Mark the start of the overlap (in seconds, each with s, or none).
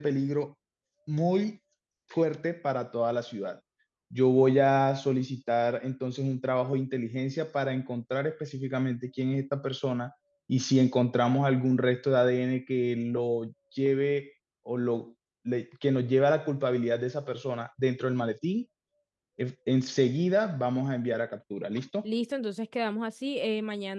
none